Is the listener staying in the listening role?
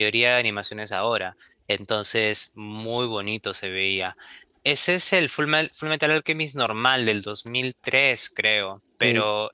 Yes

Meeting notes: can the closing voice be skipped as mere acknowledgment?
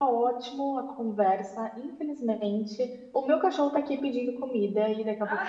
Yes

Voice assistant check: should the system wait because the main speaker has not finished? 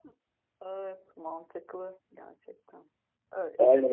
No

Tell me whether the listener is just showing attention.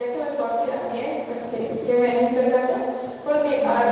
Yes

